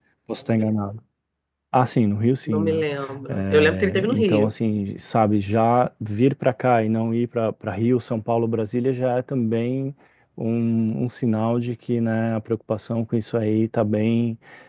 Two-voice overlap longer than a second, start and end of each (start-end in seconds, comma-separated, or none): 3.3-4.5